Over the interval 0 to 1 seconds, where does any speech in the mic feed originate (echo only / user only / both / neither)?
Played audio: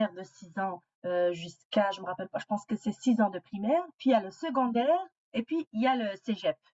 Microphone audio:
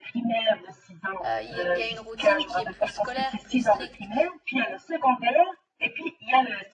echo only